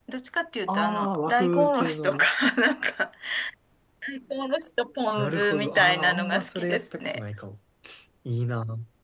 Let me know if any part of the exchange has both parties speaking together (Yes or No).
Yes